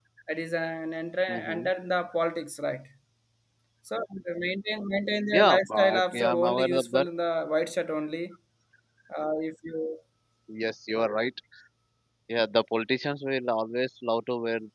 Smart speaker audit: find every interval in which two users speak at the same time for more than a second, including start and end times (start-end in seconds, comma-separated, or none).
5.3-7.1